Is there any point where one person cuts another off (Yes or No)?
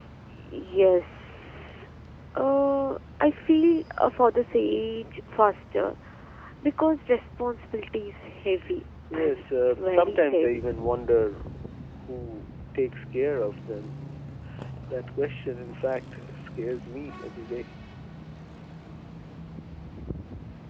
Yes